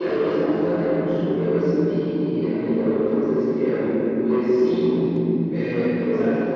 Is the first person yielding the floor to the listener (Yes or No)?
Yes